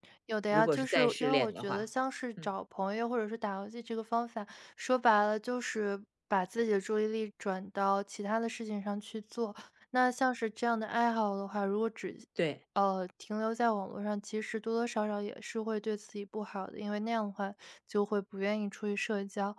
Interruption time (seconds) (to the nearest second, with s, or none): 1 s